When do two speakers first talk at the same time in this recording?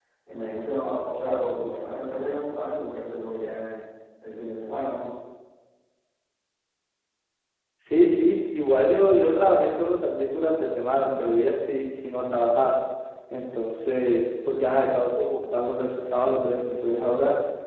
none

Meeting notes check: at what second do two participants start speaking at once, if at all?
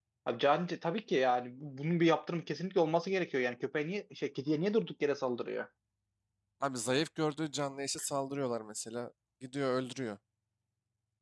none

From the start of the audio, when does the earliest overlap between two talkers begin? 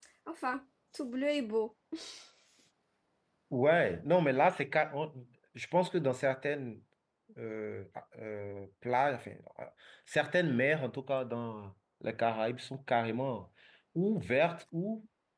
none

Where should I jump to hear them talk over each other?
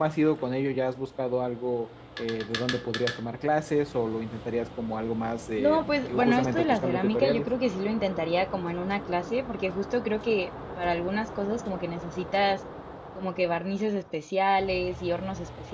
5.6 s

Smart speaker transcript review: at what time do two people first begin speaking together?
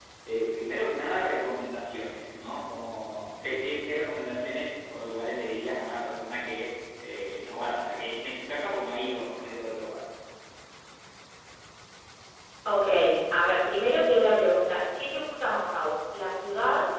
none

